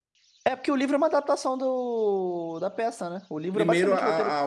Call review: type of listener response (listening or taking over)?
taking over